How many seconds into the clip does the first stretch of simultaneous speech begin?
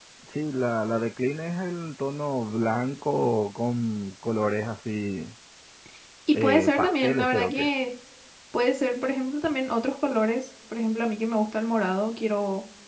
6.3 s

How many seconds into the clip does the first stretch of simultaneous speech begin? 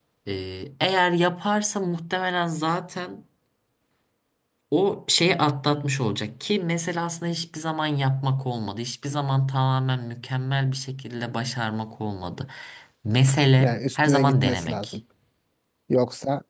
13.6 s

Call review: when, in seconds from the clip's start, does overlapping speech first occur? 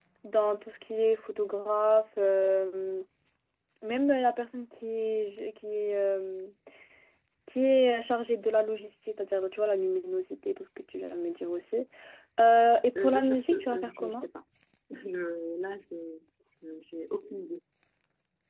13.0 s

